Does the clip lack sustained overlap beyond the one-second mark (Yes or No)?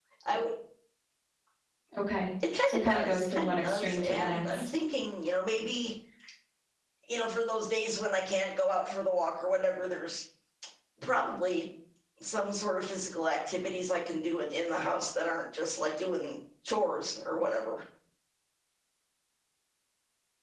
No